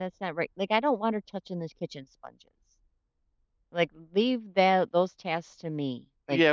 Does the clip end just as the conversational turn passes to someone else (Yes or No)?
Yes